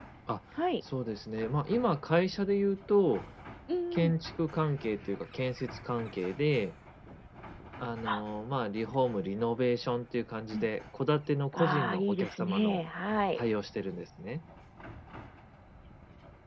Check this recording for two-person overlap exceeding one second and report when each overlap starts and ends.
11.5-12.8

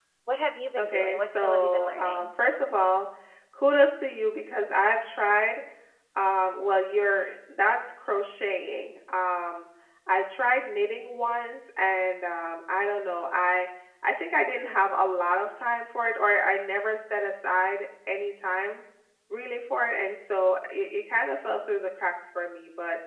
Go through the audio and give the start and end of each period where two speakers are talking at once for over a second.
0.8-2.3

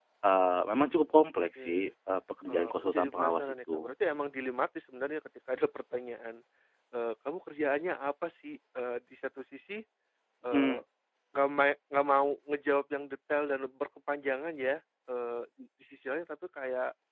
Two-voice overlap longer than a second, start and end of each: 2.5-3.9

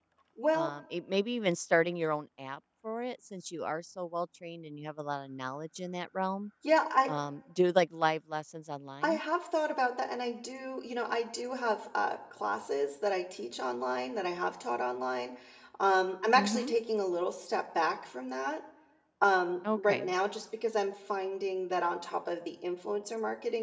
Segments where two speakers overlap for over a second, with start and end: none

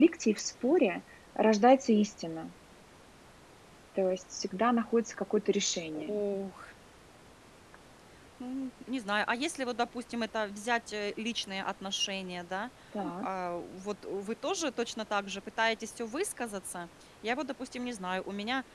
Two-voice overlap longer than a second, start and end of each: none

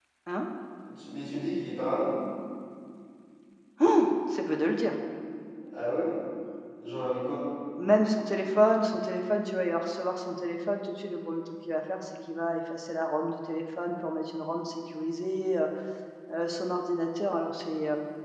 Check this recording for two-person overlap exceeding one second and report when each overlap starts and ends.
none

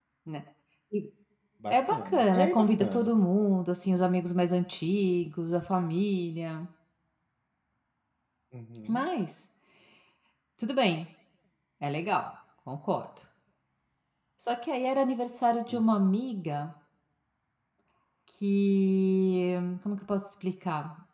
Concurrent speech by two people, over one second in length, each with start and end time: 1.7-3.1

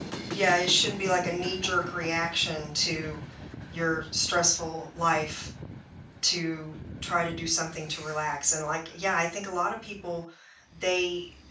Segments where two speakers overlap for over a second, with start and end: none

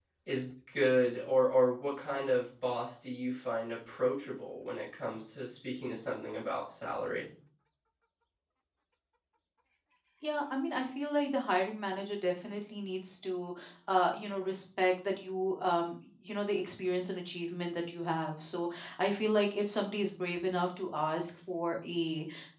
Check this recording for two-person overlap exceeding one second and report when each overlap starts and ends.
none

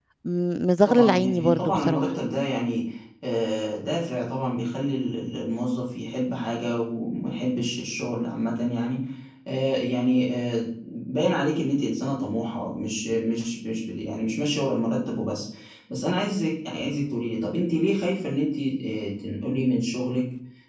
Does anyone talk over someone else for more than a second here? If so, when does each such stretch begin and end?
0.8-2.0

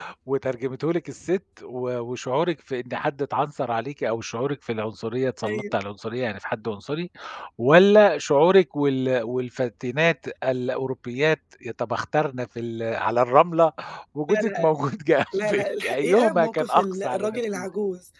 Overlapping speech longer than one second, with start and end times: 15.4-17.6

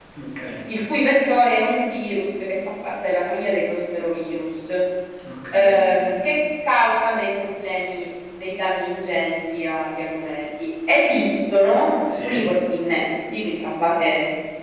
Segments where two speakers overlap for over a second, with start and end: none

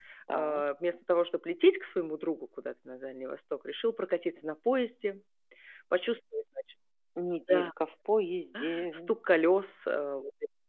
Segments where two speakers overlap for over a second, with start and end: none

